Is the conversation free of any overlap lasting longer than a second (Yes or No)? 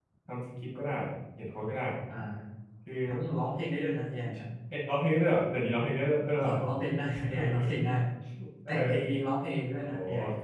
Yes